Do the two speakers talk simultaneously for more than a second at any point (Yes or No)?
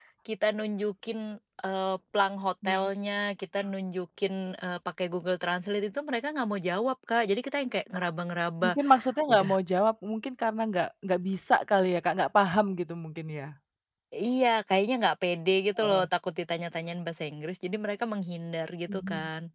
No